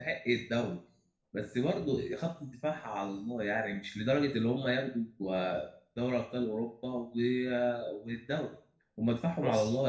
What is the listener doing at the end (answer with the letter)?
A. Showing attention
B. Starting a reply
A